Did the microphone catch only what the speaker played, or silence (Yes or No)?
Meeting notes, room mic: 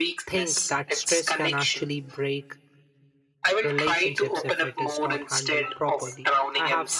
No